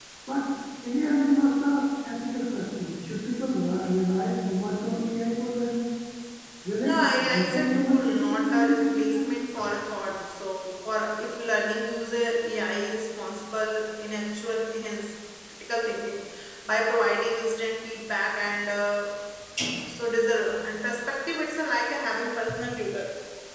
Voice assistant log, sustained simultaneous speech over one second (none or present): present